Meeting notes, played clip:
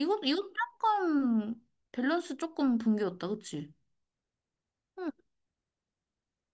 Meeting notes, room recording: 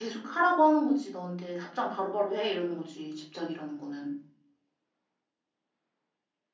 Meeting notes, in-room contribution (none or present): present